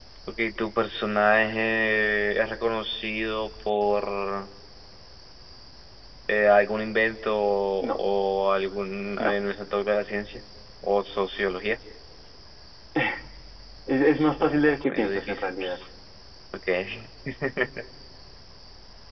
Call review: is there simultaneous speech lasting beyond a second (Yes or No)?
Yes